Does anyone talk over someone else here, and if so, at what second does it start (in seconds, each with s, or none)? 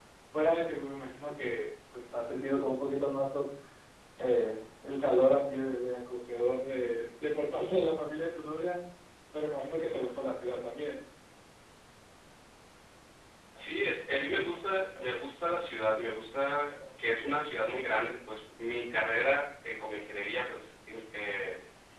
none